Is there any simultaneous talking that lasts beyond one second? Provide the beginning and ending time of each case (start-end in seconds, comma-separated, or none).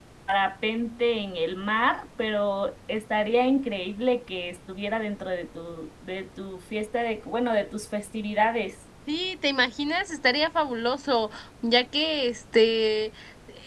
none